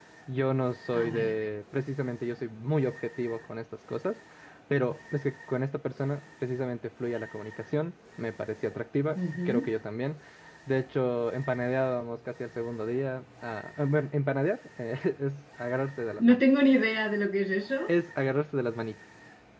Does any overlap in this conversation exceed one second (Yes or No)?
No